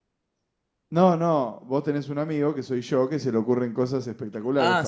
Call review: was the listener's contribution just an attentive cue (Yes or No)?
No